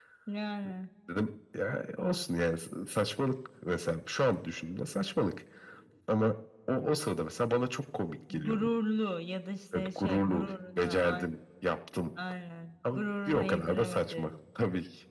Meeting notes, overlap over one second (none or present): present